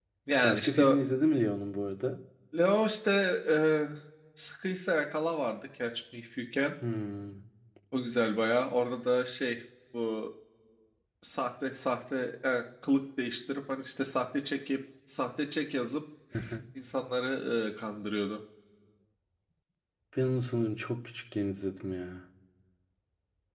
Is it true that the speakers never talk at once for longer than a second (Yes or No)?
Yes